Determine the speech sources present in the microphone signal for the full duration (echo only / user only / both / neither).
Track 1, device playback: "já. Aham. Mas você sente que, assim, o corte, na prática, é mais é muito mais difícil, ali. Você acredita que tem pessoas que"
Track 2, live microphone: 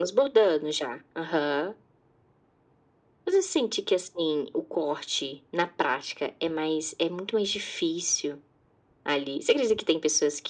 echo only